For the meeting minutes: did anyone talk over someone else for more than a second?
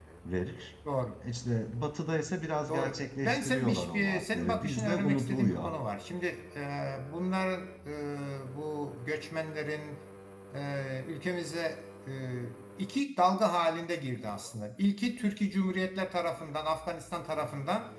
Yes, from 2.7 s

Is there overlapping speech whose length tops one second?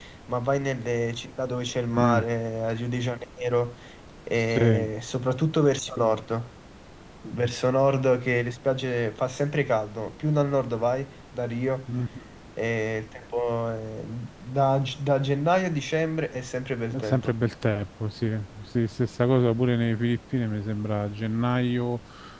No

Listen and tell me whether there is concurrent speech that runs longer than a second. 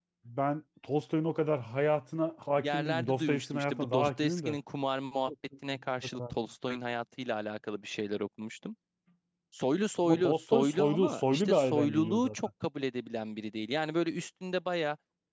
Yes, from 2.6 s

